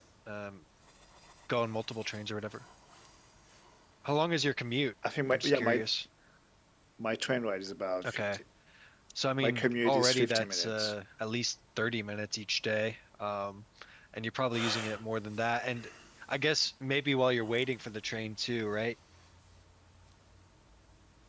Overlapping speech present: Yes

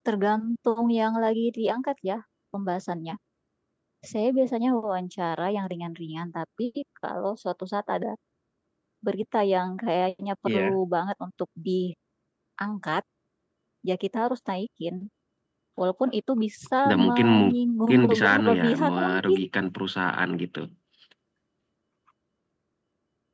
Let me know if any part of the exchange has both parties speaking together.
Yes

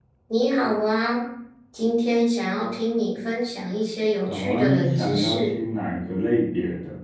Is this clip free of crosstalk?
No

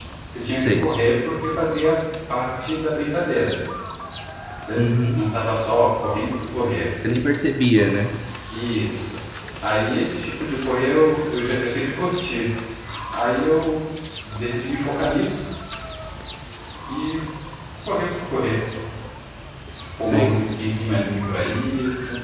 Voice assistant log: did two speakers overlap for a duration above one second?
No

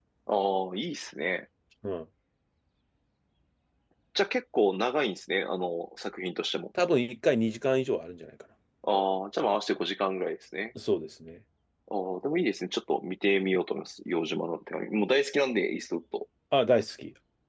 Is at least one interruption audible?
No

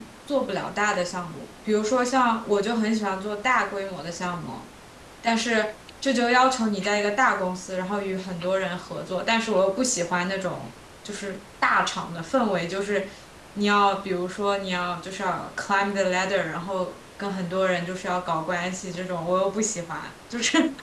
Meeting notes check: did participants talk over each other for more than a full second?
No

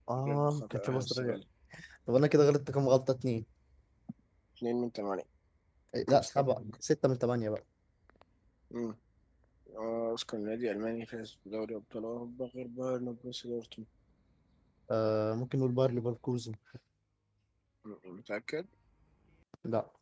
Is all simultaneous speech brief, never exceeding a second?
No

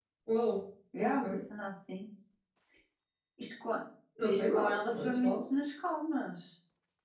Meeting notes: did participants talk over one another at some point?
Yes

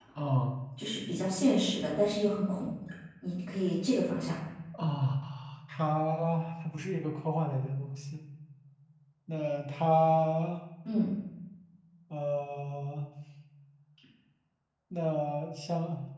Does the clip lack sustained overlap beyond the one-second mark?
Yes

